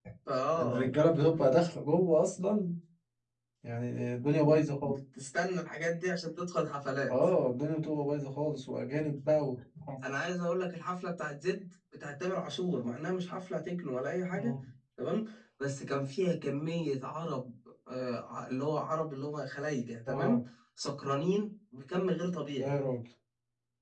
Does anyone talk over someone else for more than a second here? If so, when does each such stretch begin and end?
none

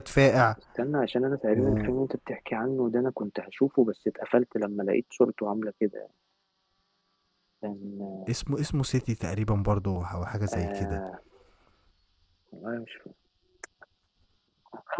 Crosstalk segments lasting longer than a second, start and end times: none

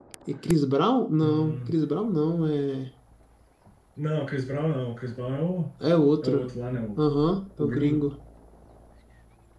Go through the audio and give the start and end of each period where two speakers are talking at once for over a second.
none

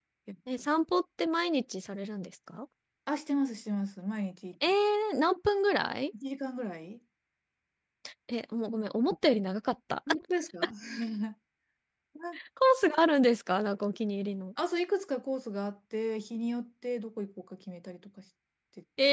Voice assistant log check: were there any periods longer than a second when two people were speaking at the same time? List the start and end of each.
none

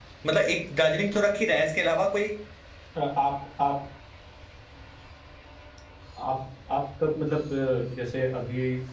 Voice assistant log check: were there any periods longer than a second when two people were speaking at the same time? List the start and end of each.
none

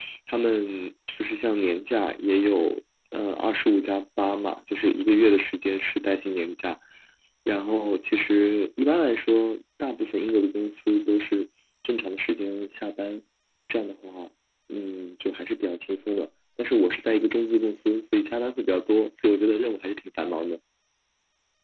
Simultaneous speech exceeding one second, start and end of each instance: none

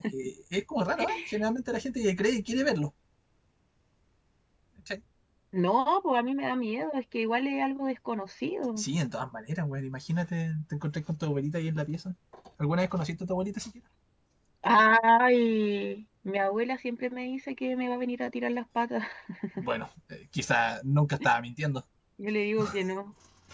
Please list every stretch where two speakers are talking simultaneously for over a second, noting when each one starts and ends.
none

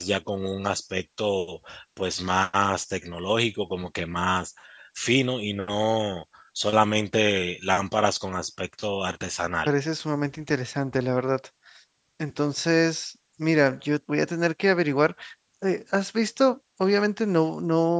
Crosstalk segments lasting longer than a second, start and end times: none

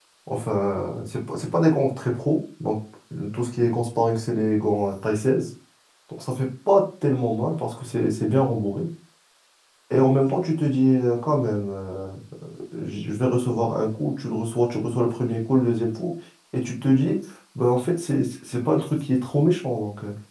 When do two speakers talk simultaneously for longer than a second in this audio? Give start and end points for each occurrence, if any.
none

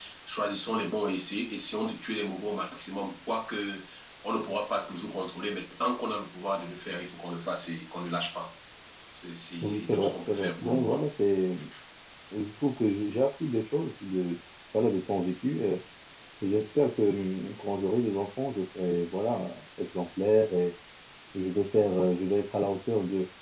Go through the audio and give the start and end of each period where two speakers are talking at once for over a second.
9.6-11.0

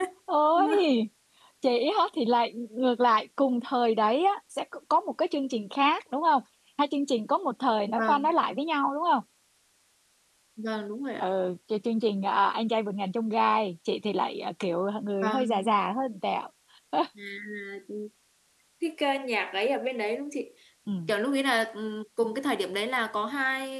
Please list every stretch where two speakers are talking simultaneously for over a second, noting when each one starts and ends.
none

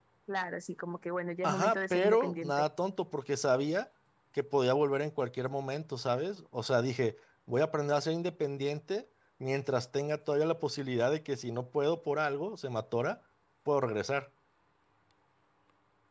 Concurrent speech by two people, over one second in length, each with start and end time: 1.4-2.6

